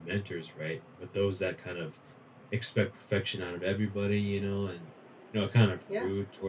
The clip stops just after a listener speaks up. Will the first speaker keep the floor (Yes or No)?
Yes